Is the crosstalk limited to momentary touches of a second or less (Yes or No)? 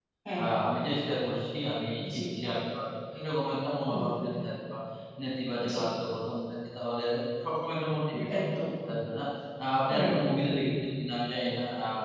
Yes